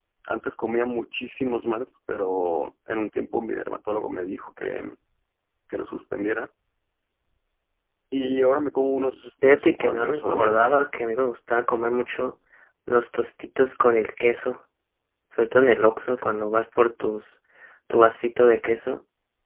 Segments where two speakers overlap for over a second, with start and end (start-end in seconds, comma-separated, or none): 9.4-10.8